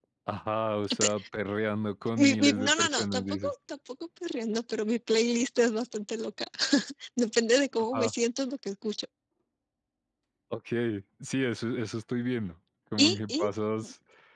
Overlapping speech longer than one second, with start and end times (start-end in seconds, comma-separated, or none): 2.2-3.5